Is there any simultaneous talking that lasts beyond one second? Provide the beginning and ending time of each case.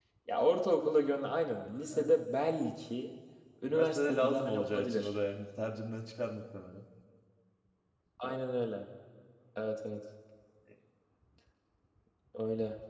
3.6-5.1

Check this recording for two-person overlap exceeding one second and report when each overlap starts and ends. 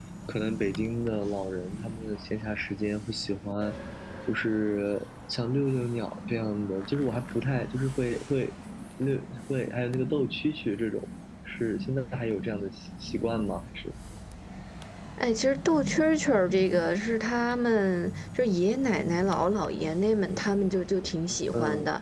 none

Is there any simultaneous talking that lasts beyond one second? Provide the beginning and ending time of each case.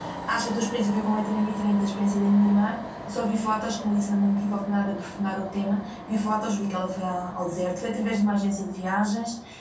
none

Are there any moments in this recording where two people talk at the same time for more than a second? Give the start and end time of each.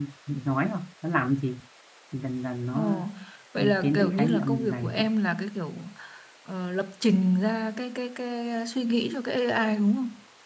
3.6-5.0

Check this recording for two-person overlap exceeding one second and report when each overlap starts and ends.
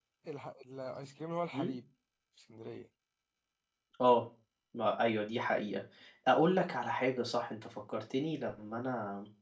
none

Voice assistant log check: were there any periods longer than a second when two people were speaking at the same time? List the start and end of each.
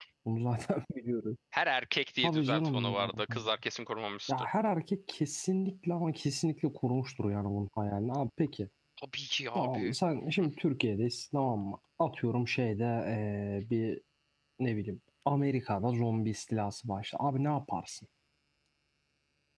2.2-3.5

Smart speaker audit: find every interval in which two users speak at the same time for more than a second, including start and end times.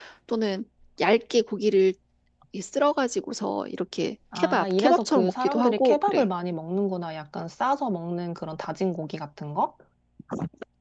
4.3-6.3

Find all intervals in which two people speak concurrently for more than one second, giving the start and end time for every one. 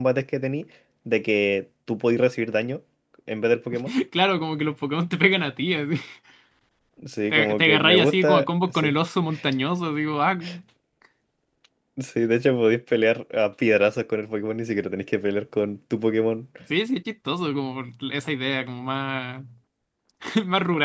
7.3-8.9

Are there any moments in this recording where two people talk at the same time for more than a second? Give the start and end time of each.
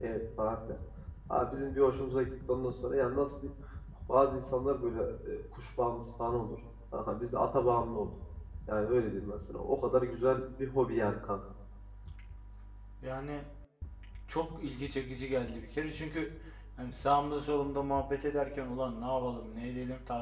none

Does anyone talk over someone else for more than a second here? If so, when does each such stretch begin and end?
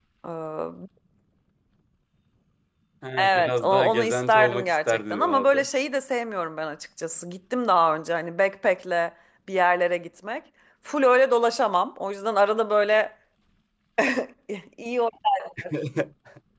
3.2-5.7

